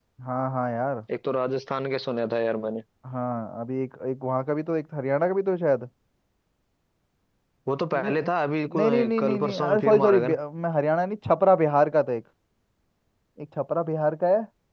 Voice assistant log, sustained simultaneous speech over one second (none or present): present